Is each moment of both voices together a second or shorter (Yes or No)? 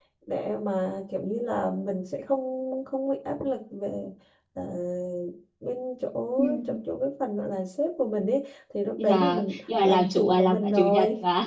No